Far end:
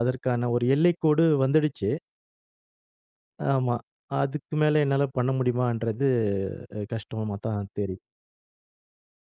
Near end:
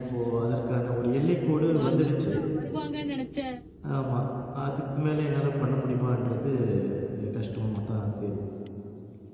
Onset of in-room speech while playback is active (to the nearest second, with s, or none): 2 s